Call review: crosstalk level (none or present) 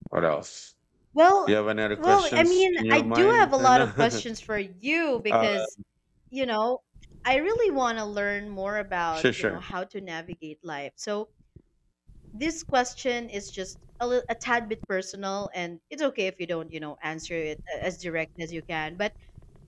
present